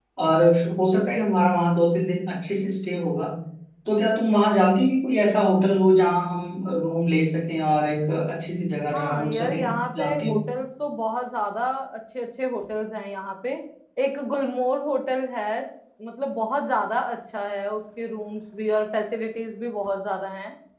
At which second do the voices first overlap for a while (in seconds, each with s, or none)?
8.9 s